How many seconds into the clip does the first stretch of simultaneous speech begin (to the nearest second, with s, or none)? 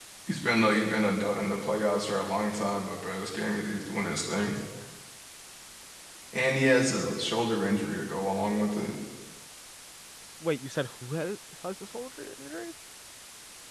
none